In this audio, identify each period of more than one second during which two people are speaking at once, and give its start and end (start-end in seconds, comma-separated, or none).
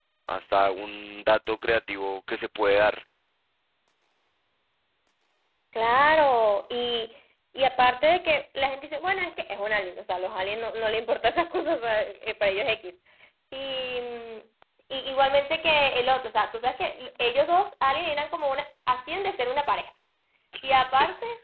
none